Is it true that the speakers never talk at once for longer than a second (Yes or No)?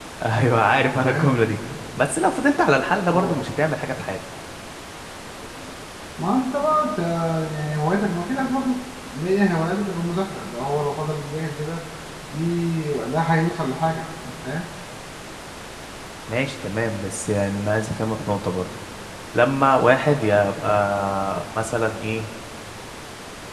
Yes